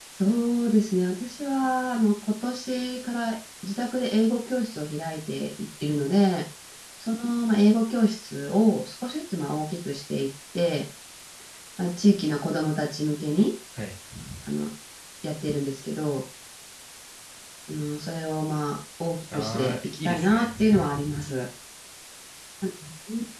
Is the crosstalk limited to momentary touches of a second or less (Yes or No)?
No